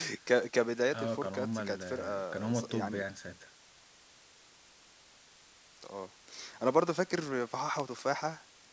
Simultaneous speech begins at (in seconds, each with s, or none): 0.9 s